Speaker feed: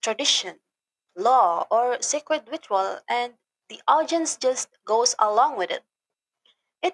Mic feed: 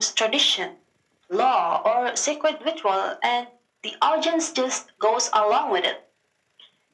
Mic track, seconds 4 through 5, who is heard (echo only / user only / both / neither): echo only